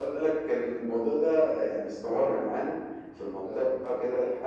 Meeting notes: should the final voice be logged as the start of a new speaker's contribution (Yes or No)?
No